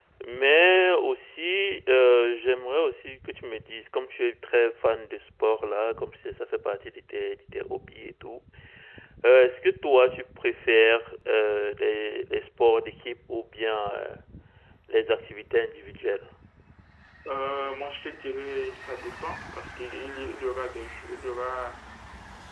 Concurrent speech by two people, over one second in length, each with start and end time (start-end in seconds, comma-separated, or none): none